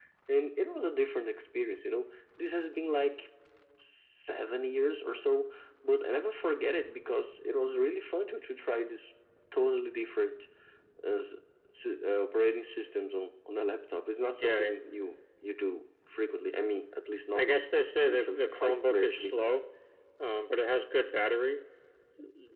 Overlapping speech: Yes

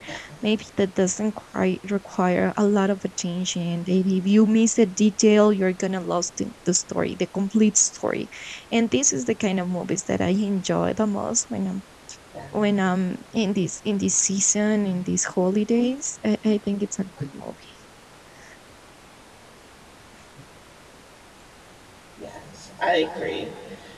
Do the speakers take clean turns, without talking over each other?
Yes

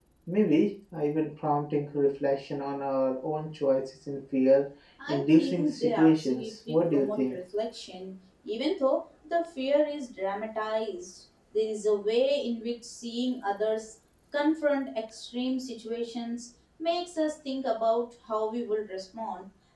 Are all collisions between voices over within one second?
No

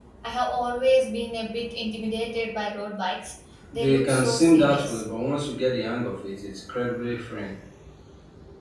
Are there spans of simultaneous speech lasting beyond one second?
Yes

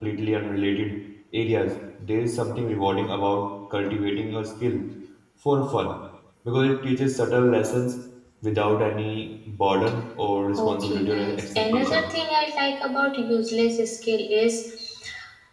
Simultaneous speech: Yes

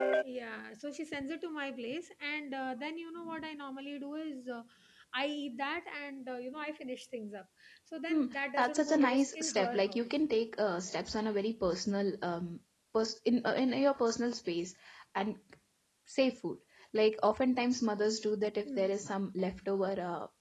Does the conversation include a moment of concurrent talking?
Yes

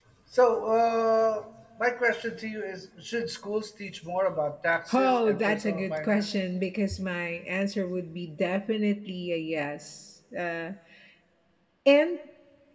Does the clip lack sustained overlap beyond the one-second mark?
No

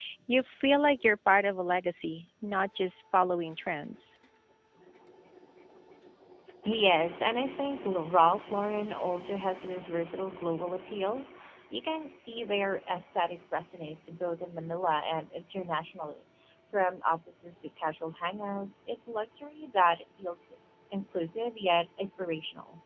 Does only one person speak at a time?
Yes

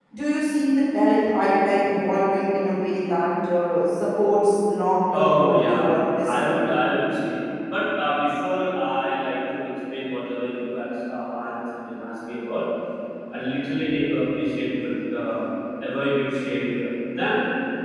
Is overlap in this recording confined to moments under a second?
No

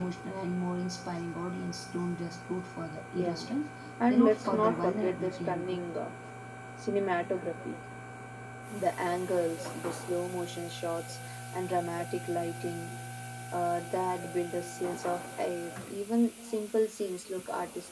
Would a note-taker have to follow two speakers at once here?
Yes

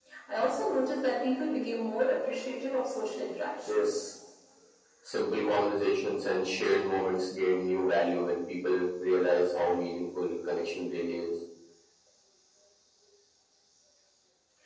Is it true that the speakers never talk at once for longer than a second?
Yes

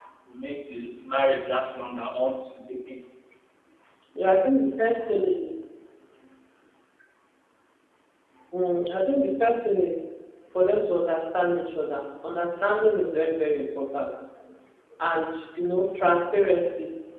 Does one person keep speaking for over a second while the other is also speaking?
No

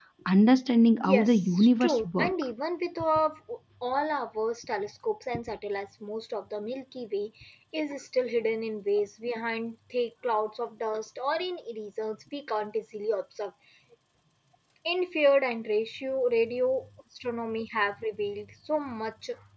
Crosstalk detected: Yes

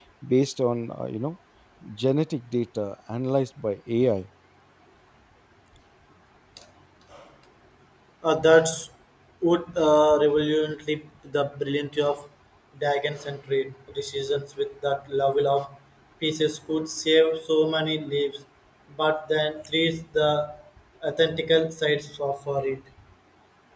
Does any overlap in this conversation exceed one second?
No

